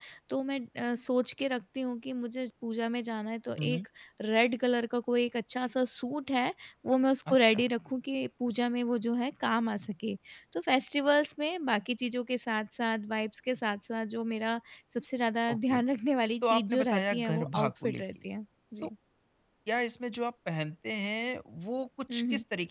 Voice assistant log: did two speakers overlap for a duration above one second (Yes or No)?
Yes